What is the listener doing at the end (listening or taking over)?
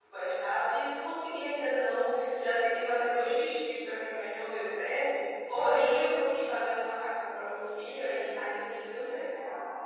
taking over